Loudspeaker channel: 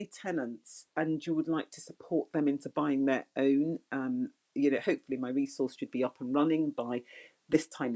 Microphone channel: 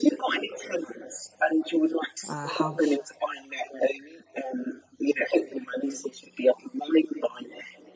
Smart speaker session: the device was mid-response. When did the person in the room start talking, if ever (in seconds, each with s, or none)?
2.2 s